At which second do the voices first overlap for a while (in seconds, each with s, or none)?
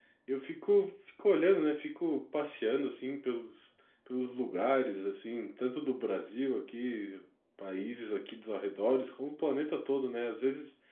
none